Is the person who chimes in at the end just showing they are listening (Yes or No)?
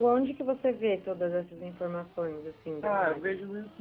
No